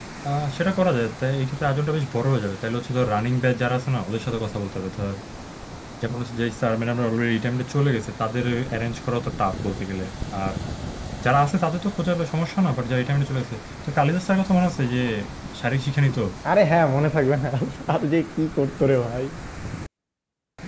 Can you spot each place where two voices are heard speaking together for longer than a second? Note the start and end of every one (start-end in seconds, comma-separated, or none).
none